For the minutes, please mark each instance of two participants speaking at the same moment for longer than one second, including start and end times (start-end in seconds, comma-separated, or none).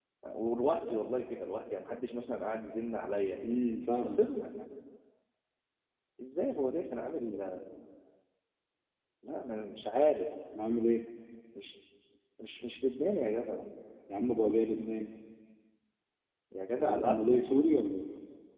none